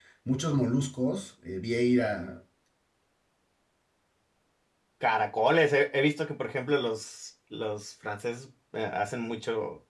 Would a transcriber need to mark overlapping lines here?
No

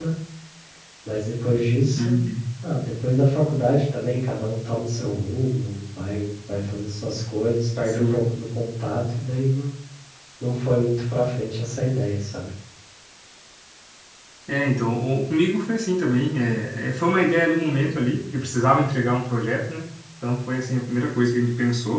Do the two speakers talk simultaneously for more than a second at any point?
No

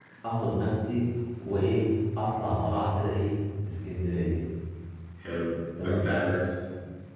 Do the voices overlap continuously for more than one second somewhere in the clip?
No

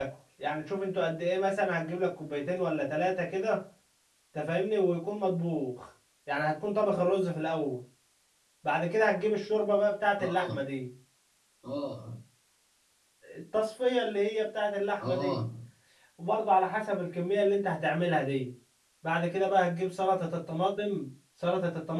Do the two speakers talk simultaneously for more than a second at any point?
No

